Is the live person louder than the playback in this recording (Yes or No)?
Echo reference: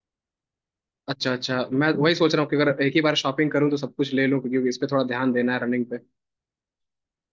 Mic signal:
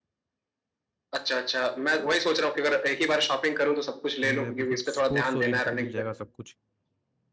No